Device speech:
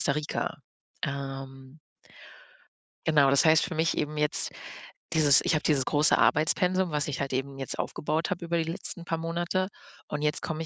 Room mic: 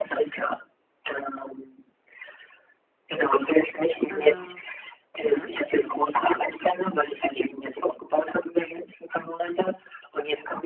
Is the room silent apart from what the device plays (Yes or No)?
No